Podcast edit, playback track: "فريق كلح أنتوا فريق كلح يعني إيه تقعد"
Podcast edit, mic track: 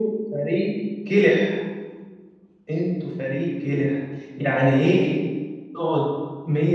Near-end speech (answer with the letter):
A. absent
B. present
A